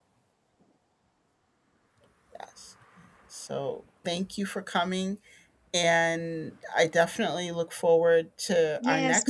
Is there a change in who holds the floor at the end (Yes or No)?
Yes